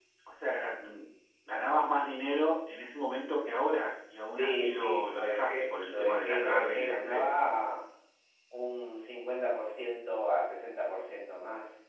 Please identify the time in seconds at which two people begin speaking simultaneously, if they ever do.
4.4 s

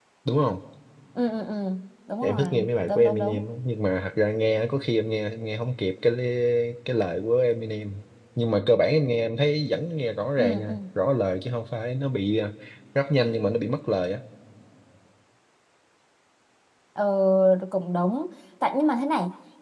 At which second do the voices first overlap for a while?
2.2 s

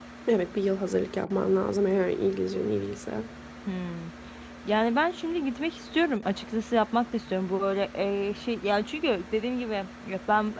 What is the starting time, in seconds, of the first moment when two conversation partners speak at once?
none

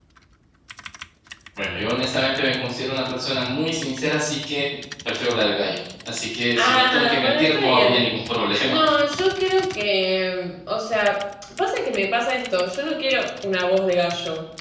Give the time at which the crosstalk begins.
6.6 s

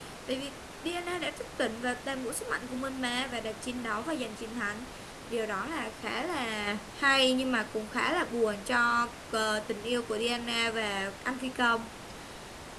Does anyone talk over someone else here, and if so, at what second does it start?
none

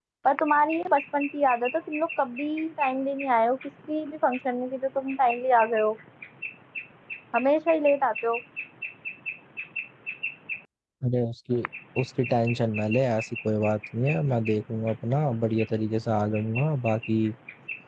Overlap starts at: none

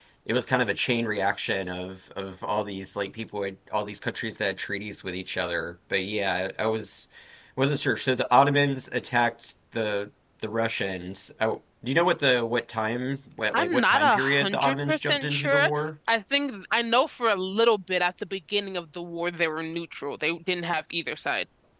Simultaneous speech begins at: 13.5 s

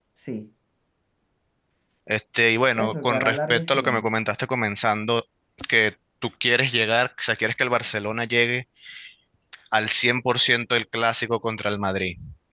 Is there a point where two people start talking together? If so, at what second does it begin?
2.8 s

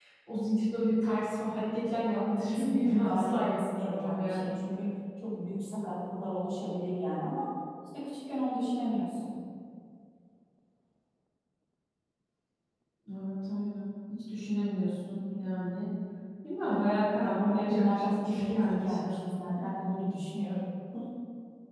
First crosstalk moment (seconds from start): 2.1 s

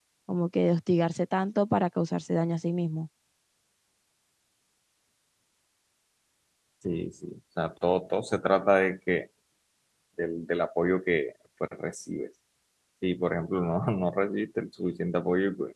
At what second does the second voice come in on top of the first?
none

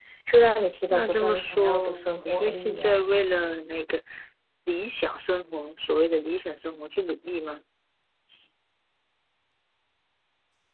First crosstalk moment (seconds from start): 0.9 s

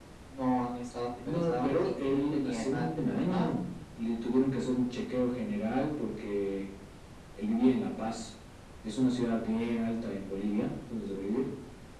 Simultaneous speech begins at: 1.2 s

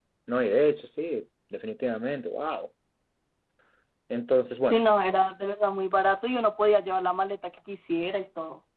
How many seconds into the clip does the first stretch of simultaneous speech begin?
none

